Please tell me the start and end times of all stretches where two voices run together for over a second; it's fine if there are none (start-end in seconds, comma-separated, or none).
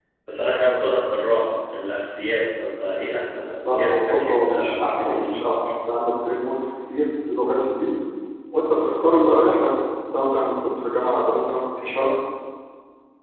3.6-5.5